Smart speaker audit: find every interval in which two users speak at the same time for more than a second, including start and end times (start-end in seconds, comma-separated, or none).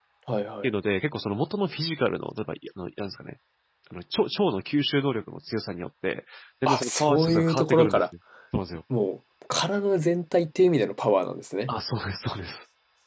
6.7-8.1